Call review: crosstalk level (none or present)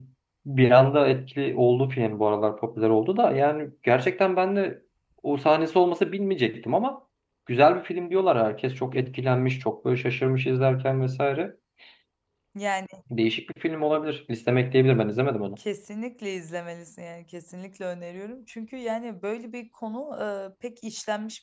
none